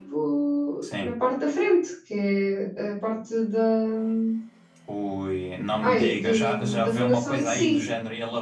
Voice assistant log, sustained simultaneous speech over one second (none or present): present